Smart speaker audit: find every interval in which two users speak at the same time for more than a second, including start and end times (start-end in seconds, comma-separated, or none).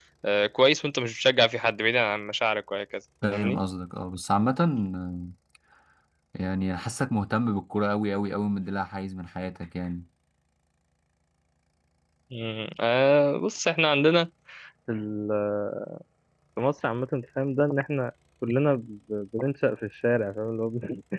none